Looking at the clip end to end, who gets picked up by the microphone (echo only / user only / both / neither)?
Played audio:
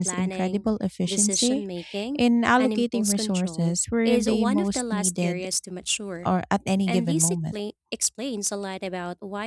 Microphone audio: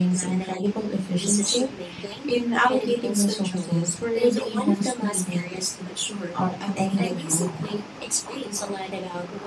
echo only